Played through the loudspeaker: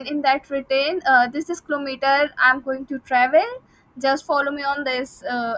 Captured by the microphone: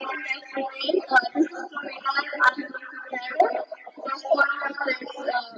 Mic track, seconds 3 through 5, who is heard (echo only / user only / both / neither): echo only